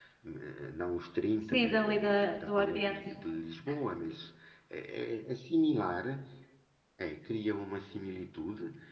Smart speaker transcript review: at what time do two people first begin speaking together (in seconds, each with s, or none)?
1.4 s